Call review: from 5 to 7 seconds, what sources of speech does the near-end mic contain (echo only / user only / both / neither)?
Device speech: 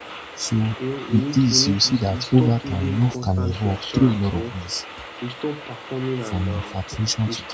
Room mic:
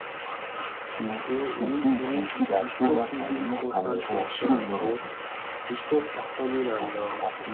echo only